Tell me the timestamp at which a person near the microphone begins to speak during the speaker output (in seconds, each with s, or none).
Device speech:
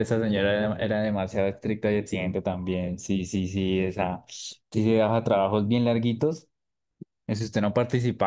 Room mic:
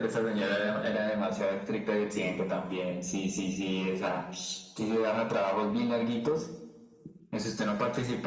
none